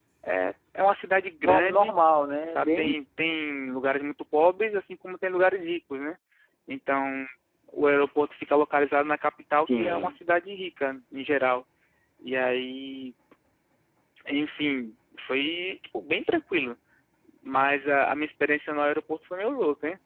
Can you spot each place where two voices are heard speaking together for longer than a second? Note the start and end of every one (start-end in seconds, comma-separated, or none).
none